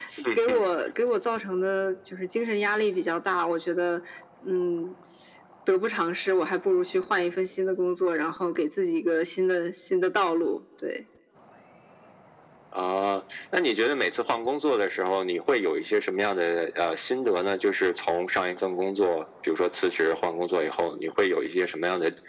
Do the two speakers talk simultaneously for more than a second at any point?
No

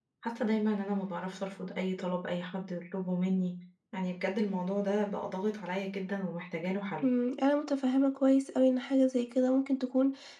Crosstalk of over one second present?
No

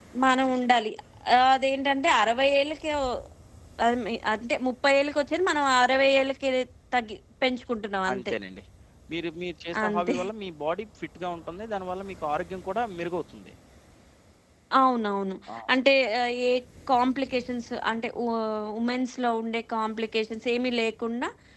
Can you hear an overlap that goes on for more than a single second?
No

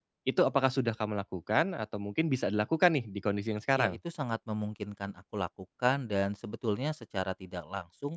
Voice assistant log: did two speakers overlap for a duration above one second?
No

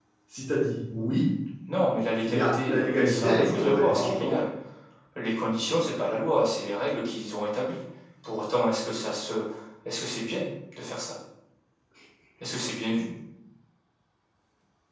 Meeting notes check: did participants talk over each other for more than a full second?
Yes, from 2.2 s

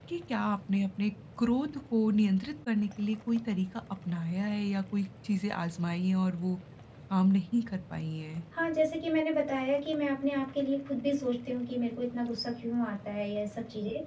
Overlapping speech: No

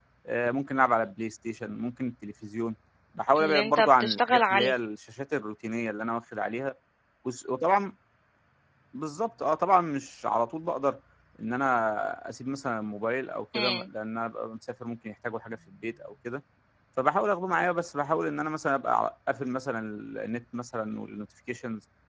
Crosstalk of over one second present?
Yes, from 3.4 s

